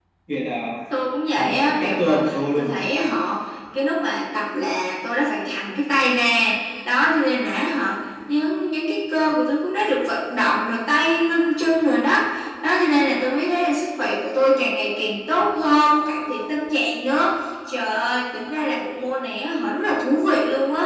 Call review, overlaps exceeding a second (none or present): present